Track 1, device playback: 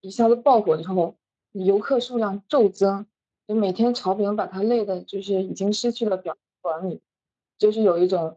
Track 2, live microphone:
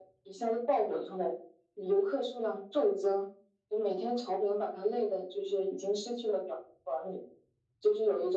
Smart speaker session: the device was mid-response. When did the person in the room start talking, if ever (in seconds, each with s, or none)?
none